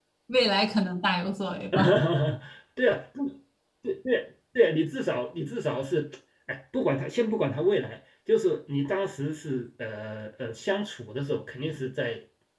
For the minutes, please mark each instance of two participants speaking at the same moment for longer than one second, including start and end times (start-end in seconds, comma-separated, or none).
none